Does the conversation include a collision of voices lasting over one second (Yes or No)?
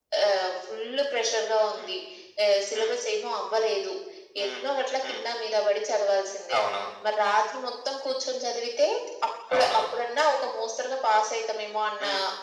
No